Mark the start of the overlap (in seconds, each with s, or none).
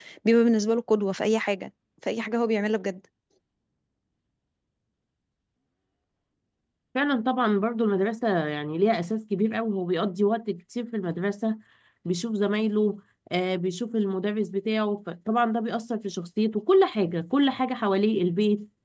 none